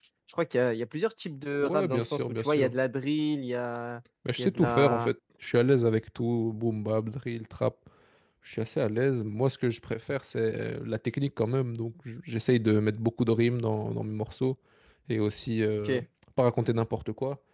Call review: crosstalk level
present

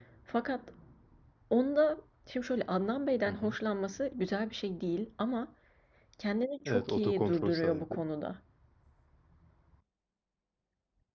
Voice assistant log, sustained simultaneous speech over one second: present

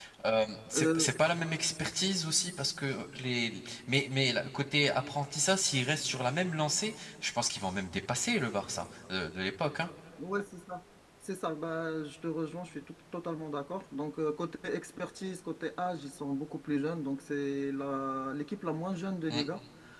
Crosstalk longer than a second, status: none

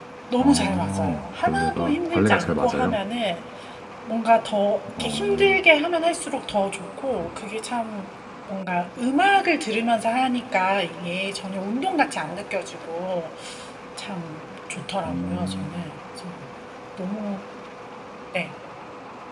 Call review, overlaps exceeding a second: present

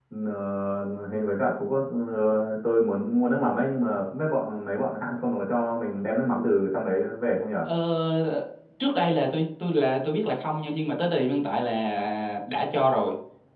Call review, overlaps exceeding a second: none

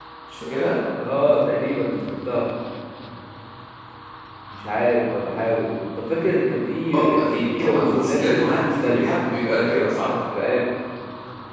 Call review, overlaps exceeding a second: present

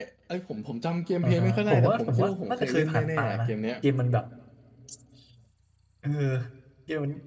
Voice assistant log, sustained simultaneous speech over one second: present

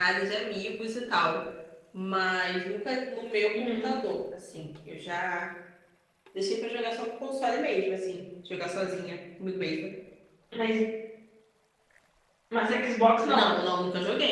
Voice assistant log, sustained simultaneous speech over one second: none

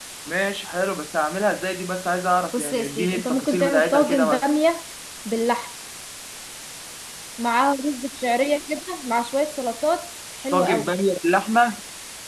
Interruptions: present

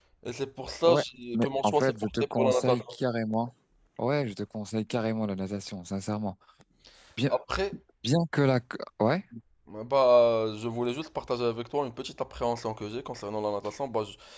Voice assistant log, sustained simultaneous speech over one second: present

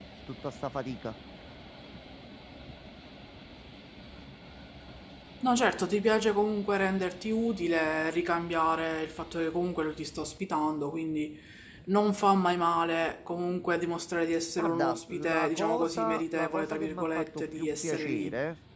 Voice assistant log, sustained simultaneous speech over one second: present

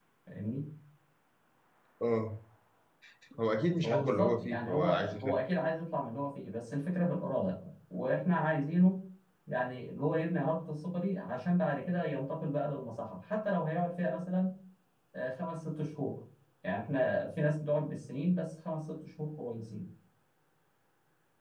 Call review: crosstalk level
present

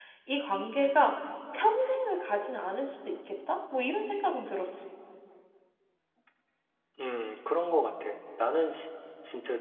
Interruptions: none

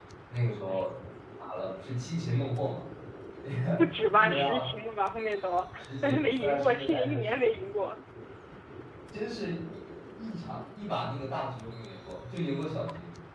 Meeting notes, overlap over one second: present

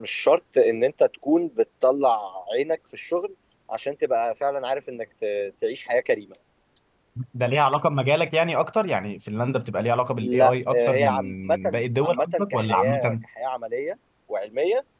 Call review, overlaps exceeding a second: present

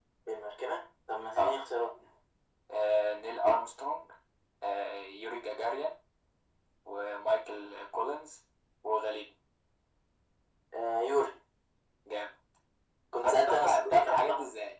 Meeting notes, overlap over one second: present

